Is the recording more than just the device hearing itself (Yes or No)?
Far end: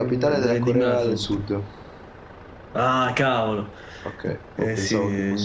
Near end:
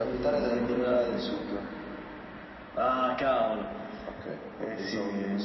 No